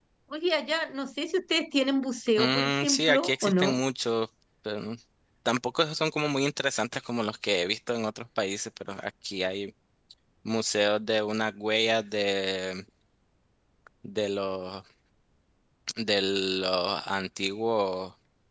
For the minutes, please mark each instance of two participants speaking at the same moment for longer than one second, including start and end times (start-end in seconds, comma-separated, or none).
2.4-3.8